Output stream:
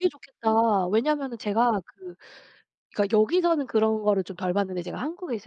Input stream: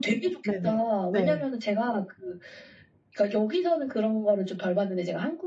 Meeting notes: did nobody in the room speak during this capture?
No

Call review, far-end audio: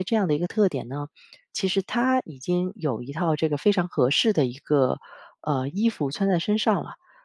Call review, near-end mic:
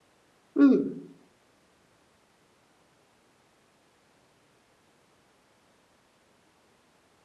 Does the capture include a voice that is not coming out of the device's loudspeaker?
Yes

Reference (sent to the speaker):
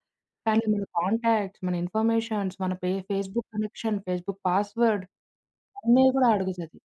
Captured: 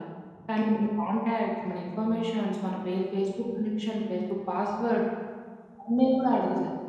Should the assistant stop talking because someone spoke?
No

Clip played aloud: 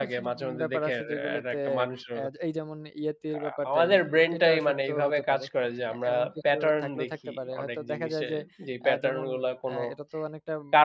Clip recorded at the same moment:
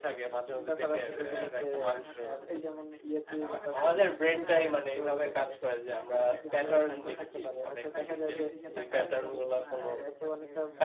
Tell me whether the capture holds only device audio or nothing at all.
No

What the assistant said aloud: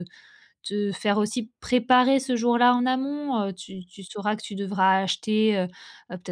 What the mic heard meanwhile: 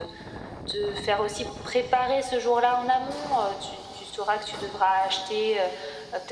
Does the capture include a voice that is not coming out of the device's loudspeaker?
No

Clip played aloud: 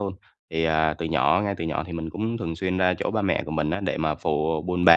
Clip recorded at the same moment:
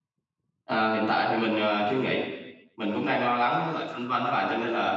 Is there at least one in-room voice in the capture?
Yes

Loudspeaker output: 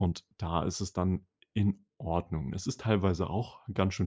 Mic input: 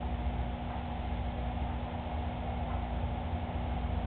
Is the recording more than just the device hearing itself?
No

